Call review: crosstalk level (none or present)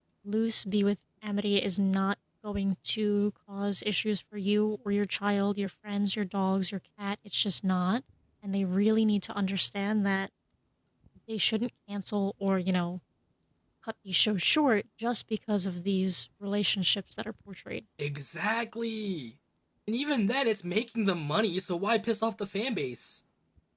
none